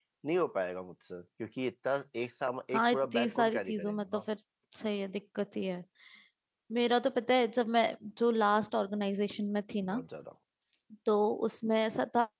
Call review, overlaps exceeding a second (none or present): present